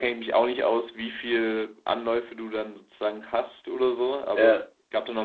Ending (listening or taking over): listening